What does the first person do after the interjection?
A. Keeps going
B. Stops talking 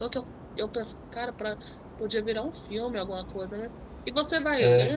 A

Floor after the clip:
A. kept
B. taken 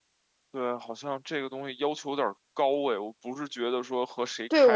B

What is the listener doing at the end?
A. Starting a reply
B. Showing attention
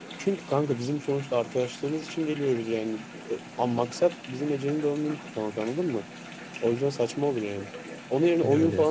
B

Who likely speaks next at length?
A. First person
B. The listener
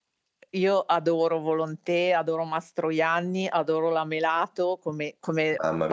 A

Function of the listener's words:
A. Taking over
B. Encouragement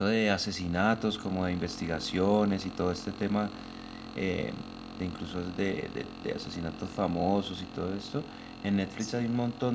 B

